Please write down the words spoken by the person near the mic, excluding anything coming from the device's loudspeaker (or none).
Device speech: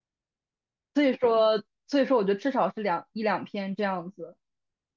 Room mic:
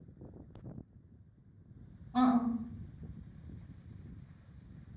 嗯嗯，